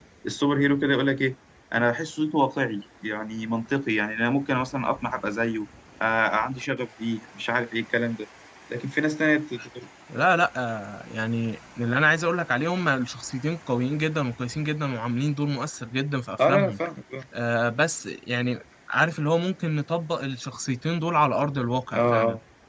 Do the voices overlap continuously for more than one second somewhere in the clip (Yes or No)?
No